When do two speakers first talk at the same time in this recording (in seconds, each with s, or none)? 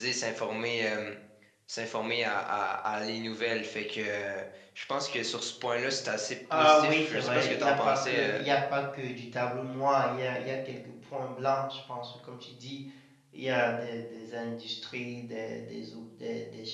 6.5 s